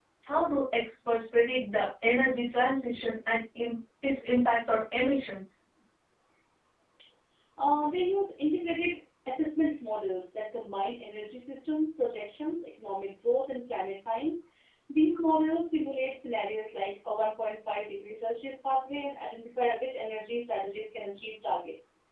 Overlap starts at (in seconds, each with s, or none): none